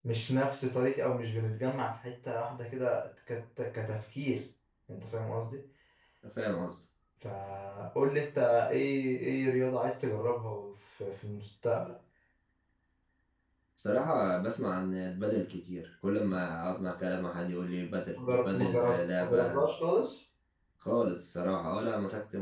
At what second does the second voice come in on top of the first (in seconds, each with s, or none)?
18.2 s